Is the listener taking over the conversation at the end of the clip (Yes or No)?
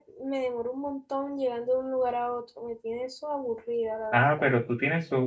Yes